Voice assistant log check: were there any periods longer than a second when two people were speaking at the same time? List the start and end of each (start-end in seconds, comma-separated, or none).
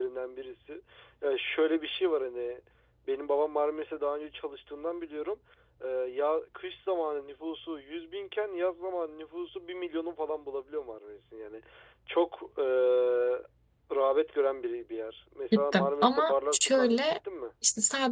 15.5-17.0